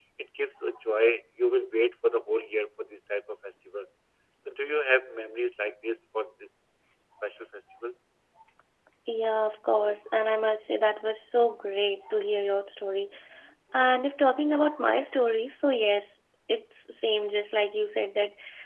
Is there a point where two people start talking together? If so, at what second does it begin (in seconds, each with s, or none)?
none